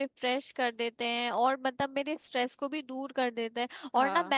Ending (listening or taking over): listening